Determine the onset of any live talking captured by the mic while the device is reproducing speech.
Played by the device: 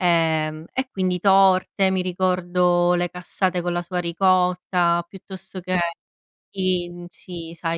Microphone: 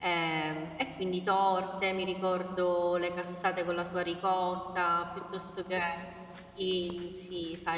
none

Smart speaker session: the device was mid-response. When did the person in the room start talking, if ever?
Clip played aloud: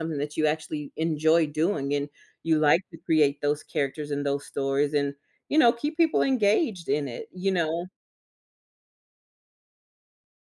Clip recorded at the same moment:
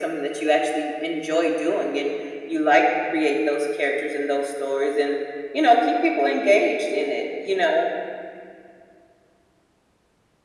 none

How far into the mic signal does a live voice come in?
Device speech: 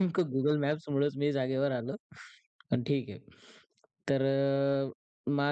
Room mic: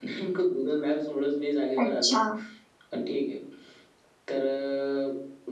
1.8 s

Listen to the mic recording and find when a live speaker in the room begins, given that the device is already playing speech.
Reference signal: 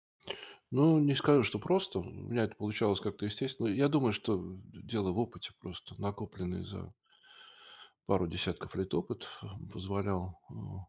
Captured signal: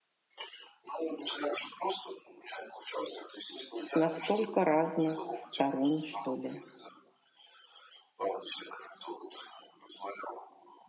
3.7 s

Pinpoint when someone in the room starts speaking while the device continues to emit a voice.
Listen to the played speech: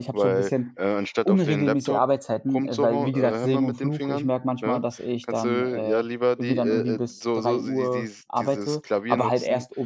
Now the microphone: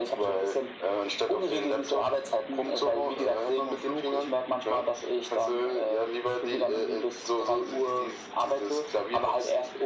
none

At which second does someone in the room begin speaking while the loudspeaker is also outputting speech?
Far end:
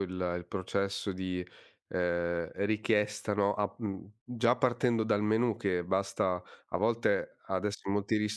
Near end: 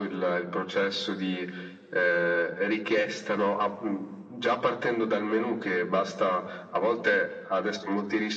none

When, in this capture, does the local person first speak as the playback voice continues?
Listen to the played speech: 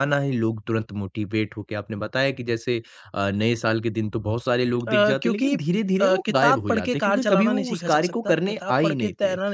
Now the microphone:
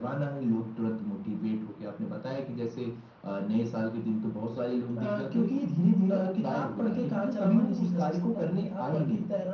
none

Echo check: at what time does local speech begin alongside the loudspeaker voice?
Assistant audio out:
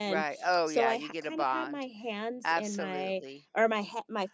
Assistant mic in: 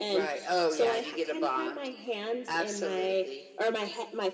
none

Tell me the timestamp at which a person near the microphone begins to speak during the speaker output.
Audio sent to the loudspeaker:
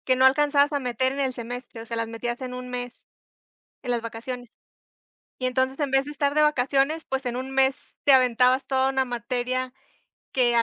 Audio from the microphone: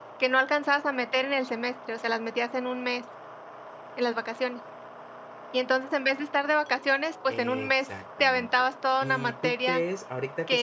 7.3 s

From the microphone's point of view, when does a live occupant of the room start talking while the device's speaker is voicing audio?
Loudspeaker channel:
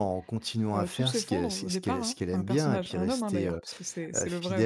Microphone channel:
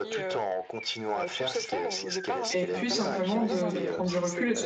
2.5 s

